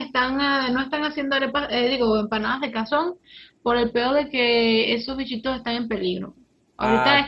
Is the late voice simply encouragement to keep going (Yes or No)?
Yes